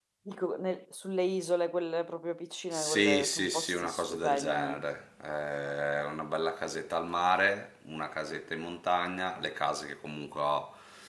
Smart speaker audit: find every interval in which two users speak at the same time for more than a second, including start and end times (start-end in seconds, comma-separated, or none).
2.7-4.8